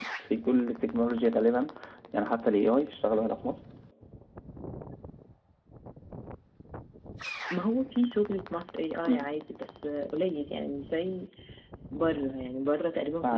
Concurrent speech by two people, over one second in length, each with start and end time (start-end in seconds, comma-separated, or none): none